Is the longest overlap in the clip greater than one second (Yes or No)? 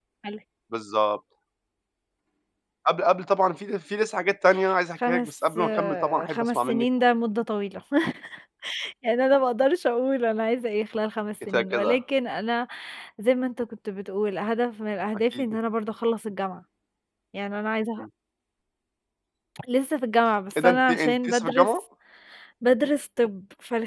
Yes